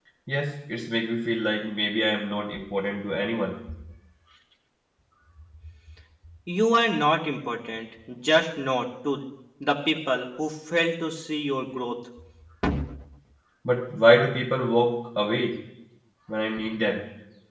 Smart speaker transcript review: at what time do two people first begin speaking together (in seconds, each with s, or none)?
none